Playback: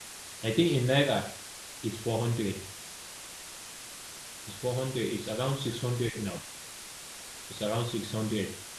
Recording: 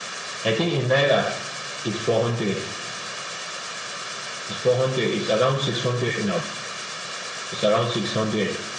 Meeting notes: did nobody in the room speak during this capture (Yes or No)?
Yes